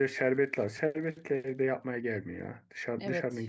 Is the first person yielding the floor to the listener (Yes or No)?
Yes